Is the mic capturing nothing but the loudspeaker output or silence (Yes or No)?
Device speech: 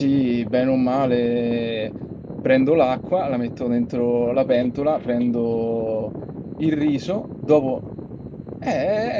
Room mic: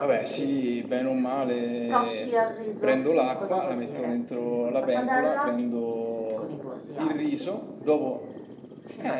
No